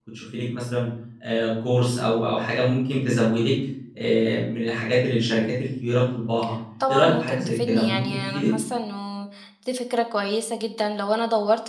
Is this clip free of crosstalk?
No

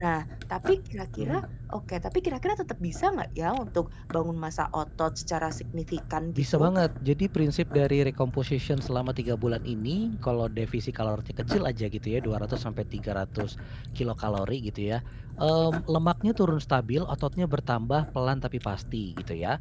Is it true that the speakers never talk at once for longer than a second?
Yes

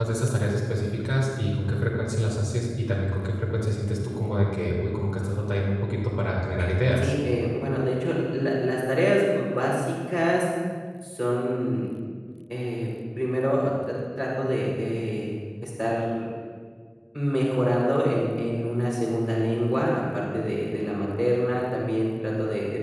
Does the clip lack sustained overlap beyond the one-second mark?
Yes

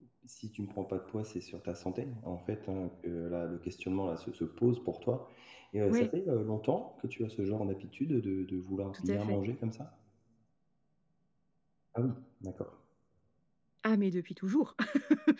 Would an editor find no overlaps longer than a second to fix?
Yes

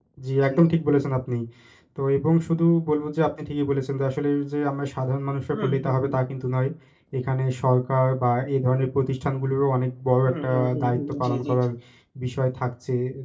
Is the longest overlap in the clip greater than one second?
Yes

